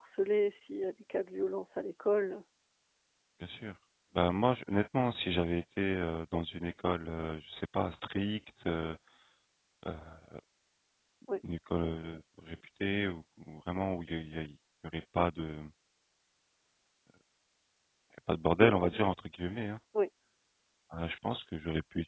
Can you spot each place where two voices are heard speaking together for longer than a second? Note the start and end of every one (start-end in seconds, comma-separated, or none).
none